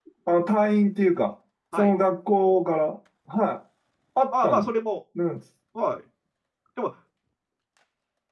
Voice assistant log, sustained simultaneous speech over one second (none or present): none